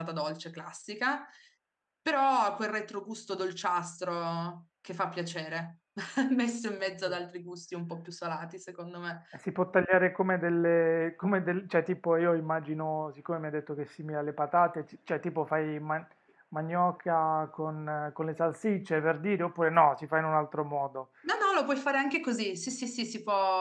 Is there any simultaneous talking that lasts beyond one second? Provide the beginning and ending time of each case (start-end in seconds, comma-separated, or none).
none